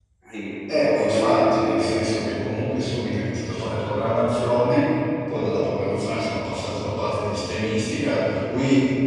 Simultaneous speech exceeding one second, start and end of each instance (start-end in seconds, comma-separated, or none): 0.7-2.2